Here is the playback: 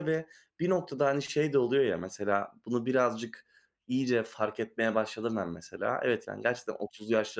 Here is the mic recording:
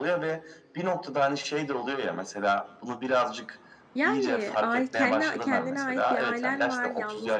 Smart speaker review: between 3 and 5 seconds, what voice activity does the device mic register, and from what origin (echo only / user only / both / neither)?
both